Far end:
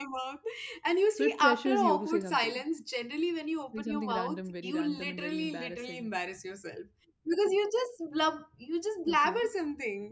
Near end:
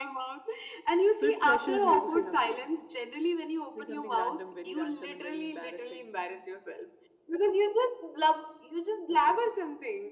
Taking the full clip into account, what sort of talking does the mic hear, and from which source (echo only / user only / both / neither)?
echo only